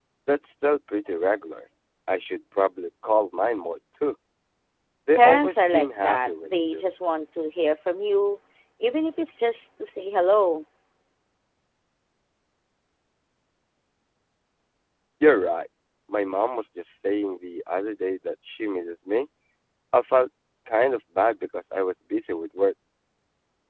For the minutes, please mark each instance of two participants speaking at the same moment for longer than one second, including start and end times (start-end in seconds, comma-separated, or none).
5.2-6.8